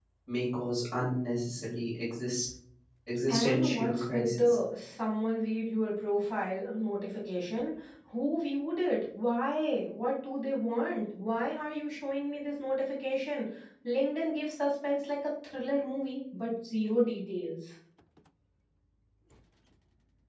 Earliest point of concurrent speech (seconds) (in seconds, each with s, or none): 3.3 s